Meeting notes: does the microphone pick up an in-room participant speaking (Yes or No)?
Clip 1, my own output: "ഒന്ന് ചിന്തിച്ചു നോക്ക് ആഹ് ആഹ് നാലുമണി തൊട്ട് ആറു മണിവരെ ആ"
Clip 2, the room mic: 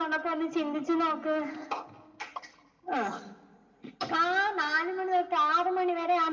No